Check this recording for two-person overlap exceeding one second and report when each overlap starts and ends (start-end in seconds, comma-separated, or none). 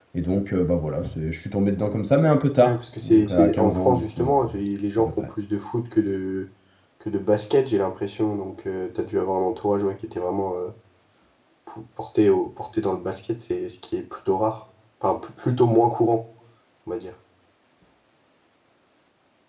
2.6-4.4